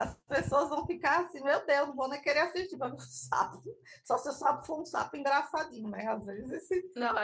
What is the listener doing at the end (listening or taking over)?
taking over